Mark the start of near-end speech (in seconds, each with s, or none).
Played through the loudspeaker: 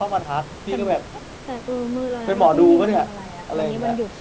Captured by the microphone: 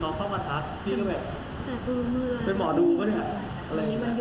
none